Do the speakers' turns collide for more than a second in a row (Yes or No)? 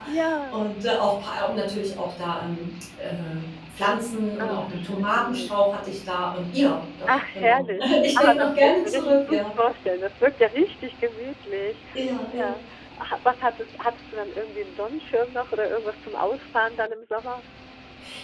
Yes